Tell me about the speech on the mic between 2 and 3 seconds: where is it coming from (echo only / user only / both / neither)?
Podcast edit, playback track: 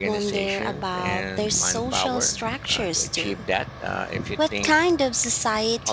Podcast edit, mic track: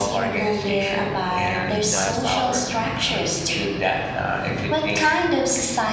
both